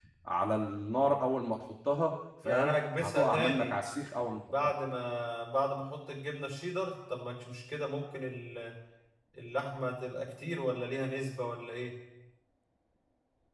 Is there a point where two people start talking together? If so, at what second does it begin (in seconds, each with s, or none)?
2.4 s